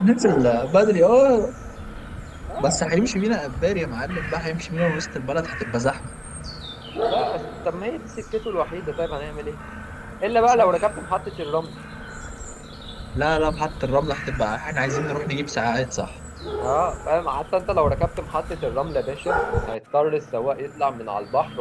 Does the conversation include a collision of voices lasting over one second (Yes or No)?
No